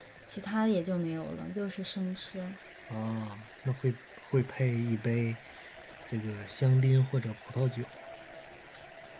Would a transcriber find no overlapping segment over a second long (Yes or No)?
Yes